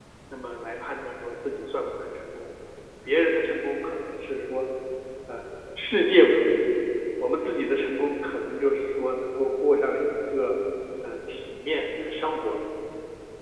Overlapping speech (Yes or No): No